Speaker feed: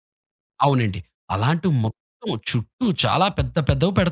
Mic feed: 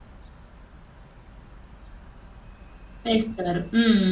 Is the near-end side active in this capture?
Yes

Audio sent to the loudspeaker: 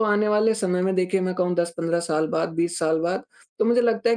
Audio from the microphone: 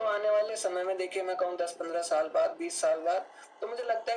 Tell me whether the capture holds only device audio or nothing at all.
Yes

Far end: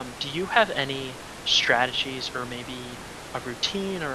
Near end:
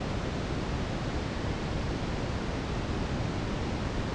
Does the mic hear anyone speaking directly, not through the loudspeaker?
No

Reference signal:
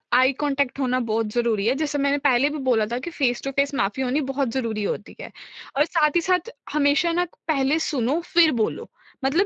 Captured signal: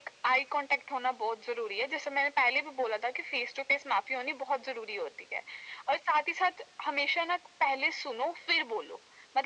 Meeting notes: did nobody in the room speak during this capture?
Yes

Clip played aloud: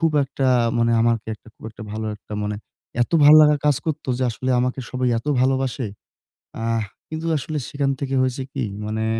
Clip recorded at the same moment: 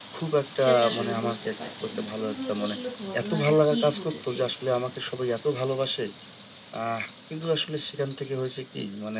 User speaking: Yes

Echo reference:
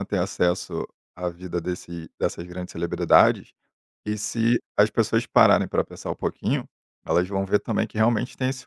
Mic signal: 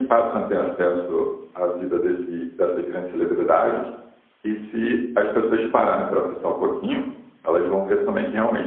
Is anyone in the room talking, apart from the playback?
No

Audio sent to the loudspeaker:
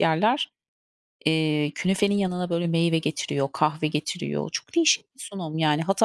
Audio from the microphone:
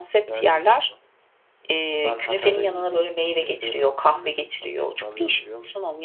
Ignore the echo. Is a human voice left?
Yes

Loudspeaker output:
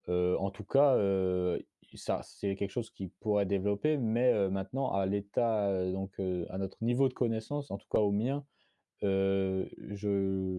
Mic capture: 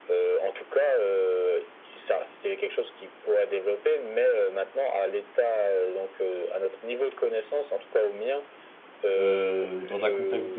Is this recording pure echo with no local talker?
No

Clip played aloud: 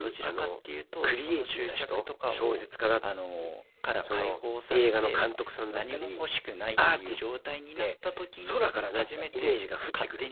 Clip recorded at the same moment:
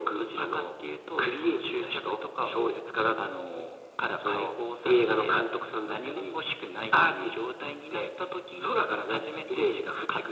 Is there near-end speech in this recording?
No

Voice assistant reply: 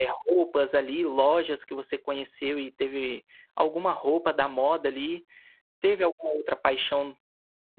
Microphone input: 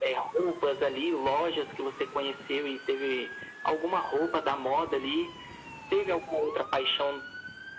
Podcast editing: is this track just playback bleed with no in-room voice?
Yes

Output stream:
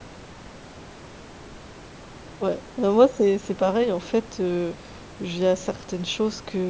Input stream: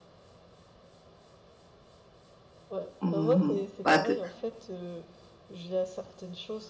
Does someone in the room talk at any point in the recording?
Yes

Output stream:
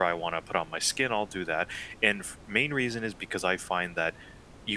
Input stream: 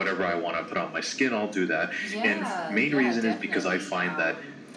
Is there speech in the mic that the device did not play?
Yes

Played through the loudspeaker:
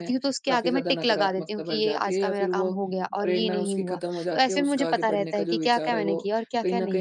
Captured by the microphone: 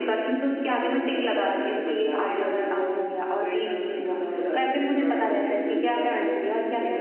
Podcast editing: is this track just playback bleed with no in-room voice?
Yes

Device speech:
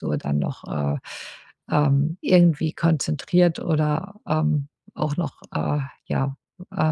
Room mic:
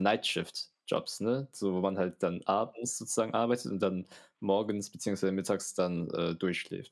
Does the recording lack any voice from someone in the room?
No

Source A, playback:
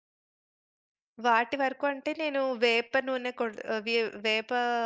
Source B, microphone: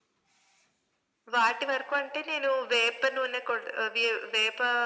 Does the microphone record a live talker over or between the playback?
No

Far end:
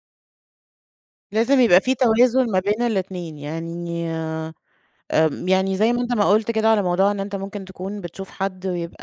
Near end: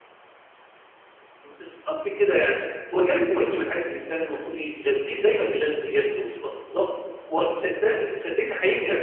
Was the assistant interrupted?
Yes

